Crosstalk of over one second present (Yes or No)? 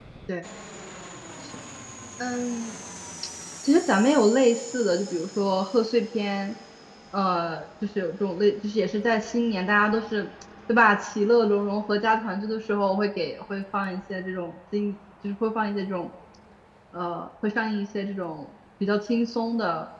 No